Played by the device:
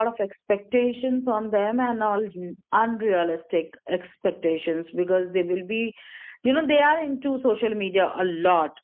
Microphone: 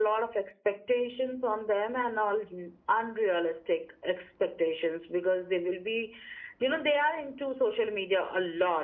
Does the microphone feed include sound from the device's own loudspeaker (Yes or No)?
Yes